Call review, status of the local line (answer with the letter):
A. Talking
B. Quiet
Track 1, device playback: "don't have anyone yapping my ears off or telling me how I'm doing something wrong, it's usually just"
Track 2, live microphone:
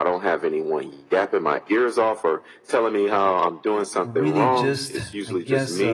A